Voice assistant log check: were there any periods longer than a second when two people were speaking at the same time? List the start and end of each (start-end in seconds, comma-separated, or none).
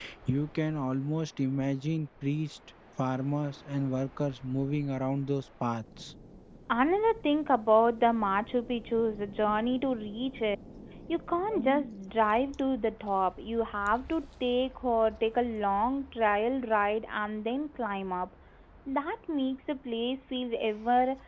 none